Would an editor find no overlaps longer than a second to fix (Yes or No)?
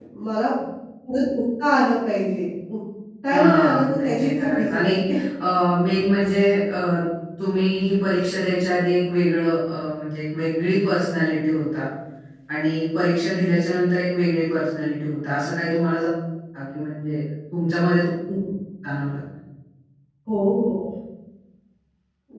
No